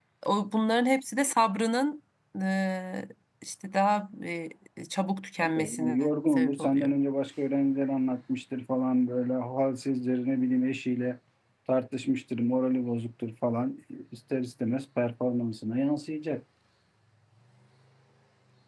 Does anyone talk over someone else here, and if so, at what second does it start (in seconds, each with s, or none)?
5.5 s